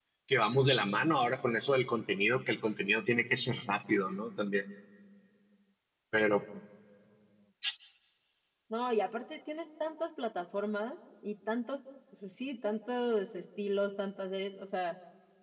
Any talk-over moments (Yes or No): No